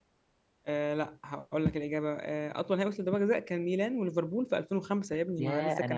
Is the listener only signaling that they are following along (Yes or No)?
No